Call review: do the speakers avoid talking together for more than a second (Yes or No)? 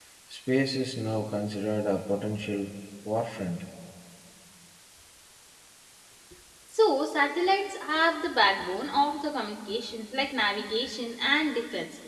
Yes